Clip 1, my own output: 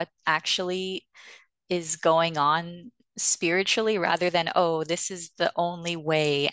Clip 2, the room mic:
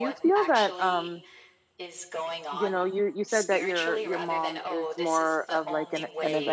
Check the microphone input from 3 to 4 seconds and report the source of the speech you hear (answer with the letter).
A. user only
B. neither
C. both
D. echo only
C